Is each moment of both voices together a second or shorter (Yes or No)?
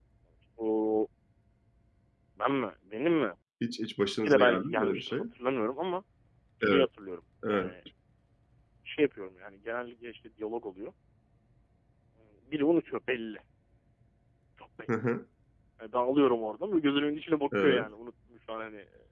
No